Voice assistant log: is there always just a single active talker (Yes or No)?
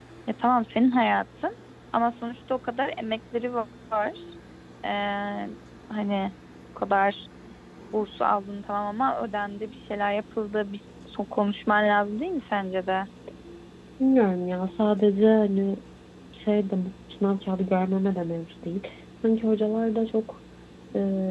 Yes